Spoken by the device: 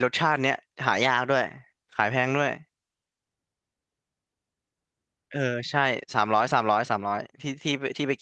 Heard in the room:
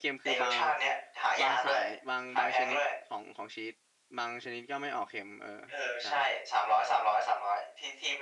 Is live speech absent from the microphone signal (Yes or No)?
No